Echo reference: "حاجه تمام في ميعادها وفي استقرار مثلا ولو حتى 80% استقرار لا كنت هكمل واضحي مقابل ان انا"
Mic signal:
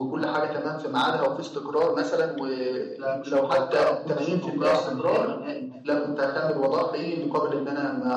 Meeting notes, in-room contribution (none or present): present